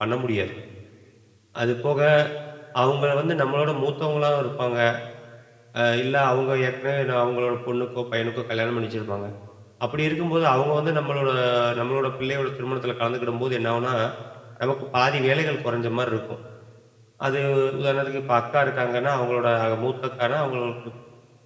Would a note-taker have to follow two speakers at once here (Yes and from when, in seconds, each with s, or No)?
No